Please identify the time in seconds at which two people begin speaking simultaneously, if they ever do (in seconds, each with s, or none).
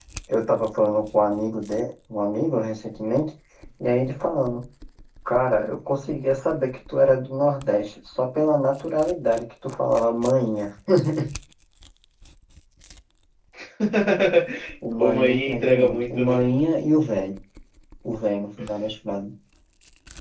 15.0 s